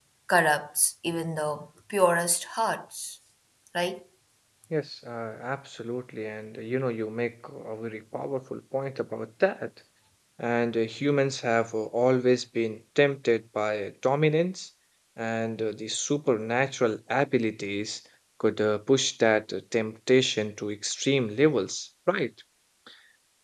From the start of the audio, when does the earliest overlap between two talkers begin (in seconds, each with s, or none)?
none